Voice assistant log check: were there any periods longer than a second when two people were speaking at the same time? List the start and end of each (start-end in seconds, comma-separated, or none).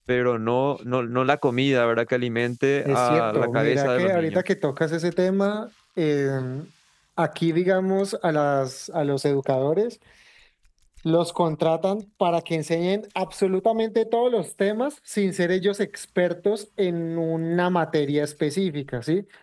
2.9-4.4